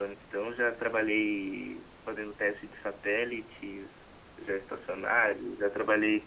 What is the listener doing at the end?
listening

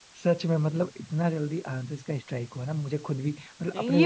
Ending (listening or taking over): taking over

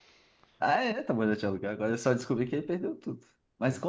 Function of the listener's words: listening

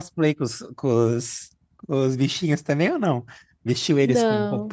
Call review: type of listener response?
listening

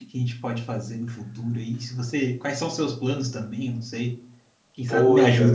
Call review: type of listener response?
taking over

